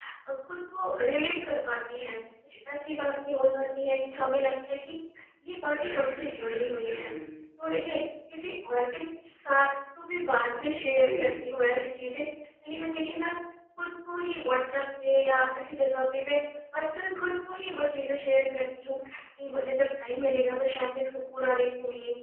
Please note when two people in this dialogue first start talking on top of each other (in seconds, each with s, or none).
5.7 s